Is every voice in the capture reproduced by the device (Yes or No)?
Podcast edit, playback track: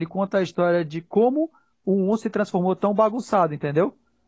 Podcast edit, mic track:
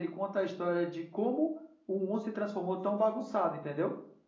Yes